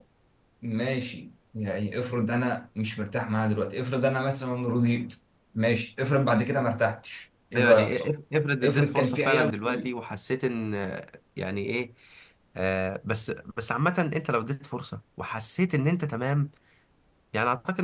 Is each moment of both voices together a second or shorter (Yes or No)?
No